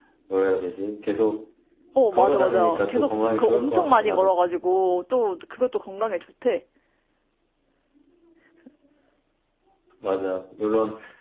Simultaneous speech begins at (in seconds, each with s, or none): 2.1 s